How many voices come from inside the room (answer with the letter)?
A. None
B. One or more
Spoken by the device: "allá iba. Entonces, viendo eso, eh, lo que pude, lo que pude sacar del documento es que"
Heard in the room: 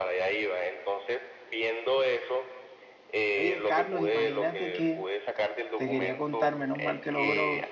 B